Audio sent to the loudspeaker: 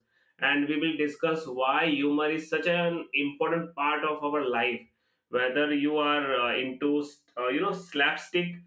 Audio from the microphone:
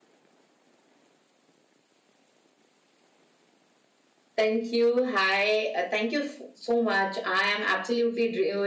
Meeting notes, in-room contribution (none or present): present